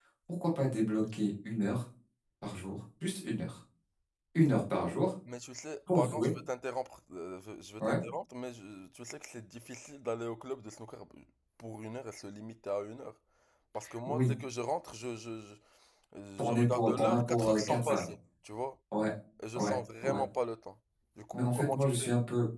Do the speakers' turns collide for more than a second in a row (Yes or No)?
Yes